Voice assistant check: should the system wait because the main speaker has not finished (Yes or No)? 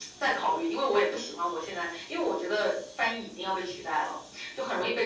Yes